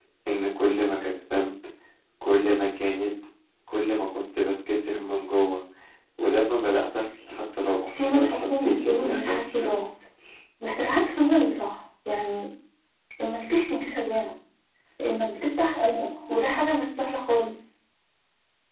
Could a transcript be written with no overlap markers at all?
No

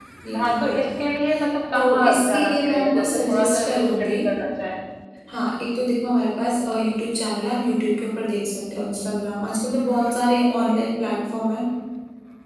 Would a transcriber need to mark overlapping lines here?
Yes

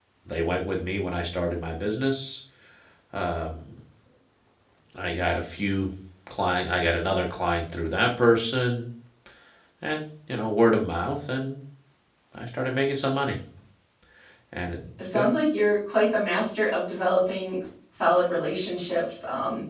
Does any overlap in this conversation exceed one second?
No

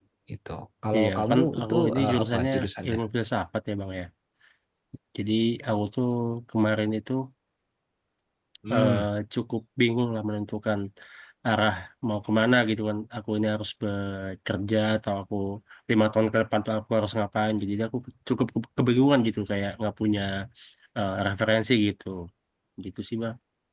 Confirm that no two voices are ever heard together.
No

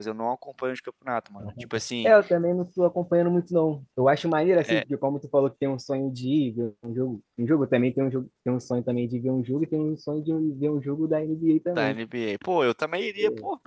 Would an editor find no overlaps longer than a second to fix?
Yes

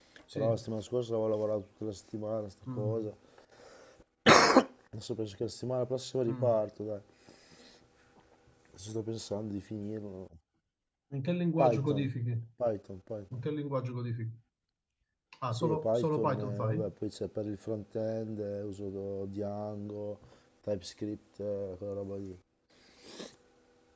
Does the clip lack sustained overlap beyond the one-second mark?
No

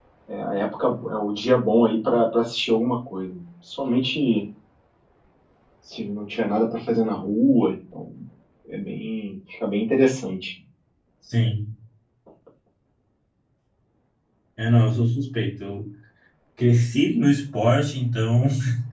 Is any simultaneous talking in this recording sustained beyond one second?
No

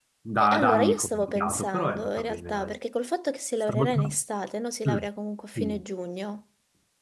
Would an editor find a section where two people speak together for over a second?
Yes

